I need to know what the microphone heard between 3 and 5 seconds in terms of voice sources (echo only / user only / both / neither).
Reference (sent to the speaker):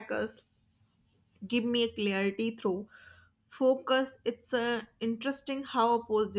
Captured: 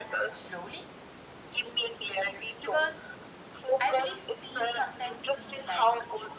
both